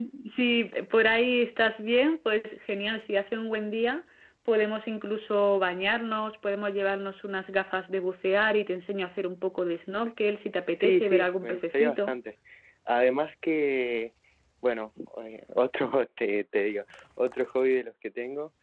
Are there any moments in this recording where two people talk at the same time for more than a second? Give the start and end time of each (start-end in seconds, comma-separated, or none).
10.8-12.2